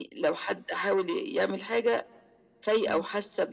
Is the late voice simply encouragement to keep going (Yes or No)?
Yes